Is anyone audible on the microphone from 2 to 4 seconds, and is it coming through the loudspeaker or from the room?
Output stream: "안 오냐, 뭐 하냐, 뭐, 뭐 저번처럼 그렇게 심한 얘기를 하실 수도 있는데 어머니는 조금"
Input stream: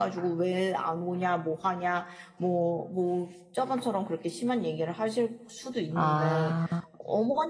echo only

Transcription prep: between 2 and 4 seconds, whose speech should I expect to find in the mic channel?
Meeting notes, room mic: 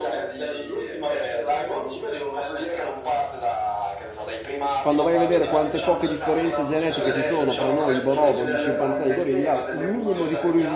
echo only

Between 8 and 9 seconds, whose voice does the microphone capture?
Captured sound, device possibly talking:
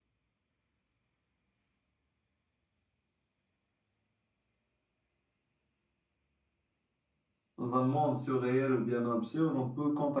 user only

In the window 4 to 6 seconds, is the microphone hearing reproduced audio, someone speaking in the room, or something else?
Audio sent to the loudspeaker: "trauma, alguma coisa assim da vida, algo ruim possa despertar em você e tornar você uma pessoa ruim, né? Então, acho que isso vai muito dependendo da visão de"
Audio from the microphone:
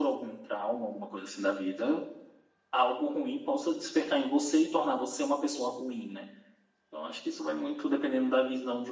echo only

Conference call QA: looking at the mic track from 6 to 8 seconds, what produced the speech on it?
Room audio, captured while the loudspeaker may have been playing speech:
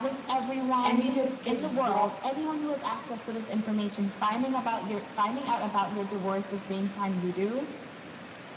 echo only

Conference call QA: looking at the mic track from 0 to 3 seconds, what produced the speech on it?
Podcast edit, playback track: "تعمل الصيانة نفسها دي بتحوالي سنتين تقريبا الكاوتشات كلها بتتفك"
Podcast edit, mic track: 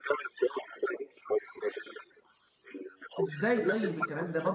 echo only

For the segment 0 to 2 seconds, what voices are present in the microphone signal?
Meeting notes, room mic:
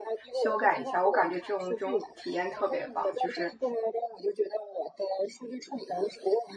both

